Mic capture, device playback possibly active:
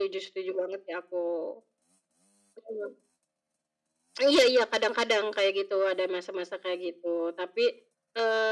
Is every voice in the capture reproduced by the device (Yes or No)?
Yes